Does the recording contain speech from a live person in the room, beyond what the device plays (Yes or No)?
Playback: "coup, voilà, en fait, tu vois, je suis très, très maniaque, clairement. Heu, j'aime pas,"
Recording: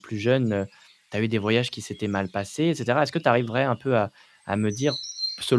Yes